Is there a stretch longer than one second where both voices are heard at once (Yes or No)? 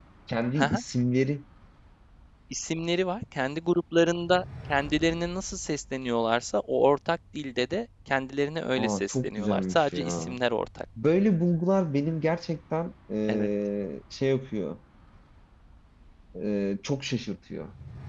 Yes